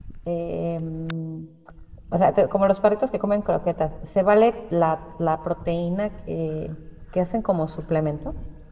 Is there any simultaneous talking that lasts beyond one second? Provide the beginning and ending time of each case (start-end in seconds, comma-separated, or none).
none